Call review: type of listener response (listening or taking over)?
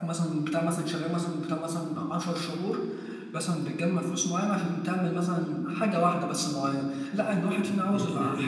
taking over